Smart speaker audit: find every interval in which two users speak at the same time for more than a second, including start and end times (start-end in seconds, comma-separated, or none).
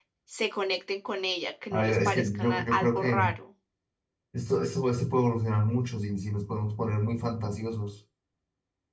1.7-3.3